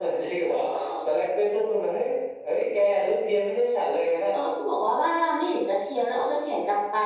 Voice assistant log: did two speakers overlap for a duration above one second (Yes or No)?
No